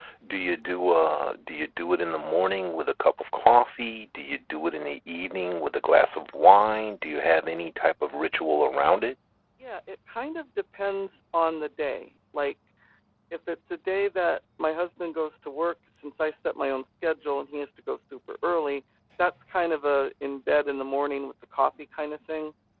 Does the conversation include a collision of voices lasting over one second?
No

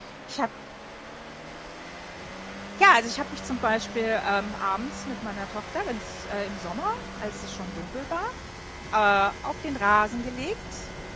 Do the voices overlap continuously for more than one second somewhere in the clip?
No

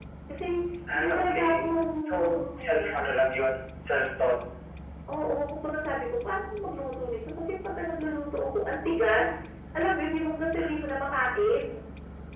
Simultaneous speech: Yes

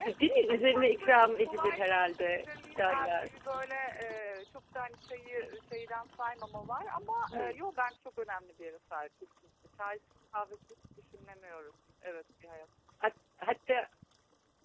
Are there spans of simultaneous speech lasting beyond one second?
Yes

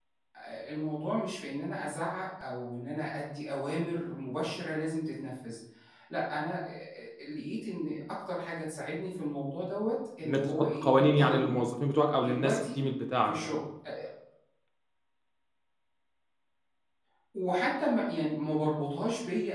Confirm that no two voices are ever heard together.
No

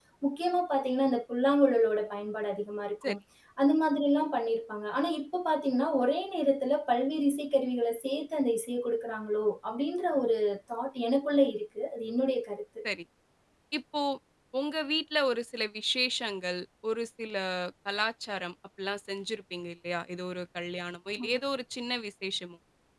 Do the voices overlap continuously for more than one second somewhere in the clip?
No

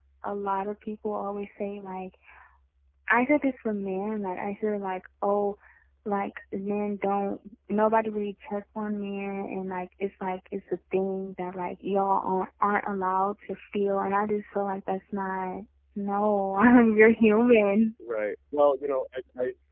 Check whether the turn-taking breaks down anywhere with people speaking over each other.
No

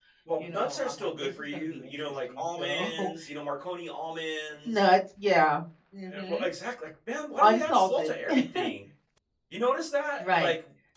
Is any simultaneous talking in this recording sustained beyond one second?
Yes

